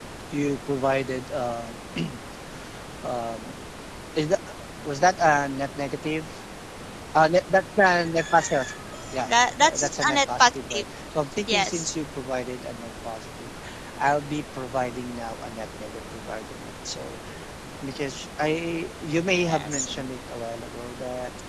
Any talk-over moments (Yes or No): Yes